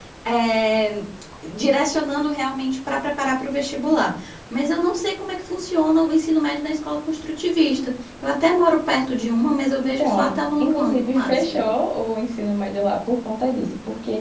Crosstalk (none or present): present